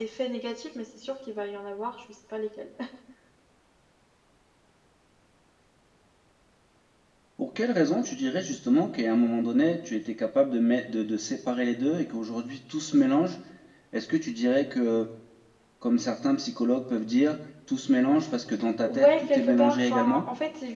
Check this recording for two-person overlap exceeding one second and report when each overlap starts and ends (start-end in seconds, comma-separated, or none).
18.8-20.2